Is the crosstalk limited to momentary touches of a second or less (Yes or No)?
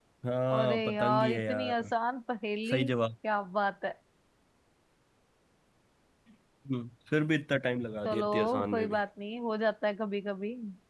No